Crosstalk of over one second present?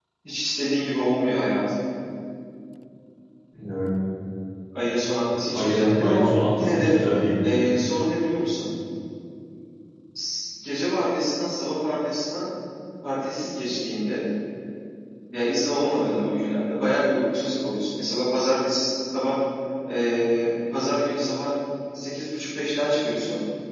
Yes, from 5.5 s

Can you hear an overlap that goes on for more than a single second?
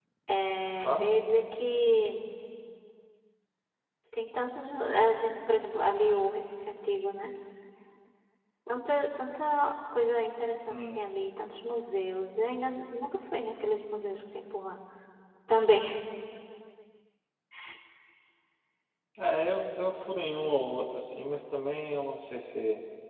No

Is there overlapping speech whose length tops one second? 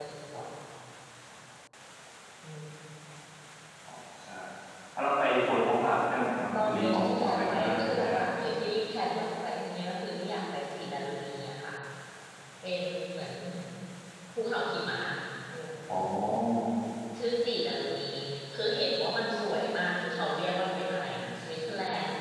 Yes, from 6.6 s

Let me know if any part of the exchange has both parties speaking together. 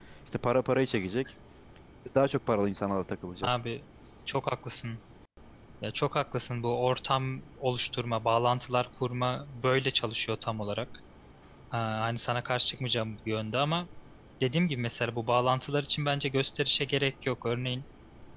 No

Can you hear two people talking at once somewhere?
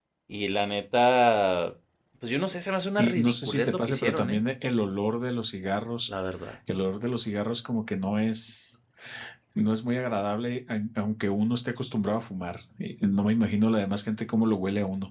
Yes, from 3.0 s

